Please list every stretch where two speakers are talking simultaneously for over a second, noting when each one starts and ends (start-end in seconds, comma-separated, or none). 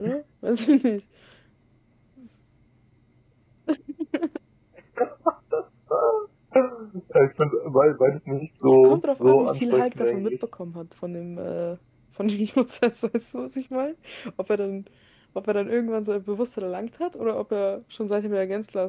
8.8-10.3